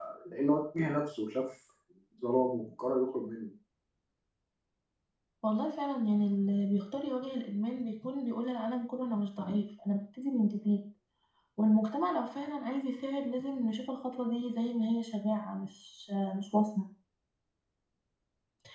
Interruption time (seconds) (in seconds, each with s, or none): none